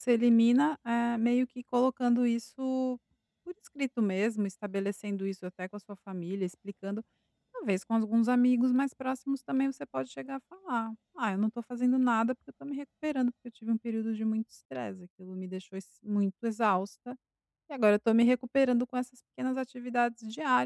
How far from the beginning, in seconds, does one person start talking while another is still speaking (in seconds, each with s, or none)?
none